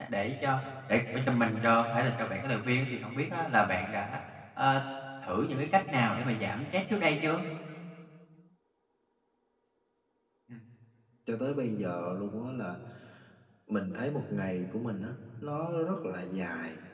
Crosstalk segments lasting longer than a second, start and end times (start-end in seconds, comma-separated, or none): none